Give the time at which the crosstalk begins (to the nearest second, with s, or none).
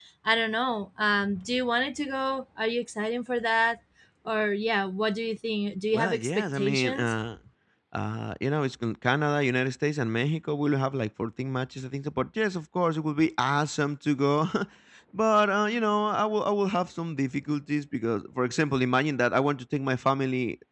6 s